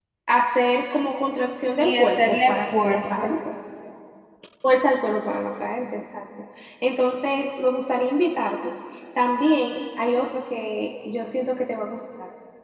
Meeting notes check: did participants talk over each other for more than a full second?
Yes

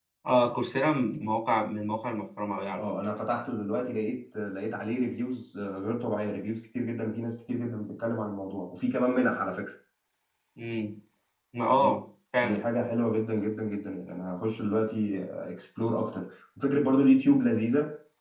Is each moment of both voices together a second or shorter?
Yes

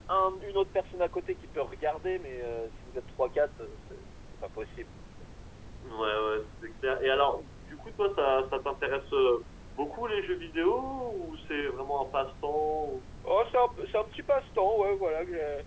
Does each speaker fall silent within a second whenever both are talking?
Yes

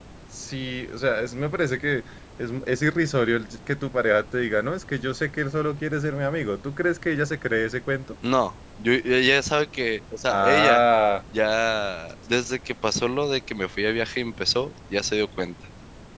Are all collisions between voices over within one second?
Yes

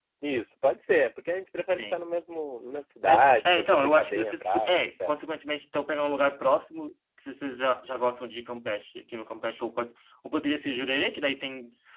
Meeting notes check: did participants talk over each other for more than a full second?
Yes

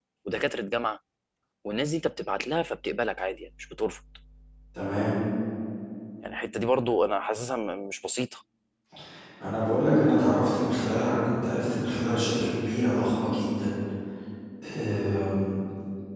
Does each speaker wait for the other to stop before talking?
Yes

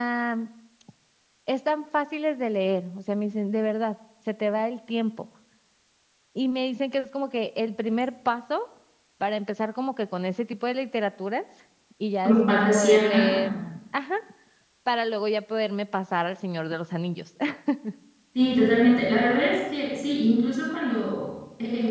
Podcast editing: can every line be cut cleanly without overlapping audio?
No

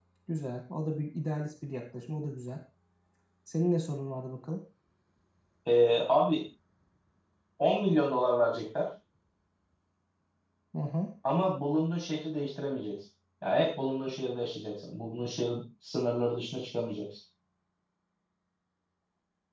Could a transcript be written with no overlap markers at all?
Yes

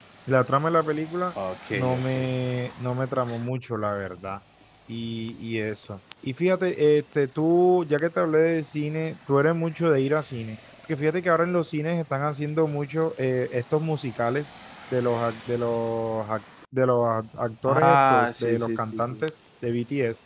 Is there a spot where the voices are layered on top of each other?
Yes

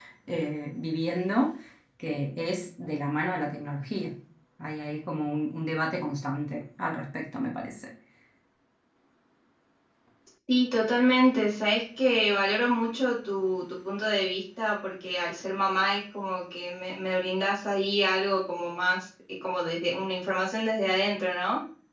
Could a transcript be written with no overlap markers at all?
Yes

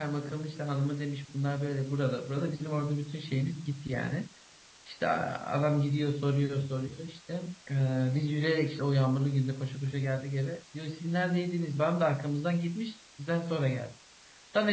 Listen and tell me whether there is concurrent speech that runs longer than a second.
No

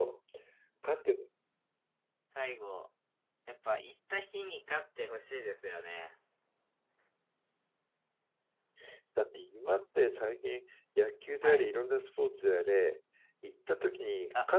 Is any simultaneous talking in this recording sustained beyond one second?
No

